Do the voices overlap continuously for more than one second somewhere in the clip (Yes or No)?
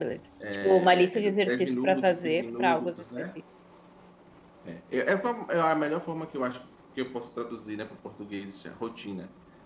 Yes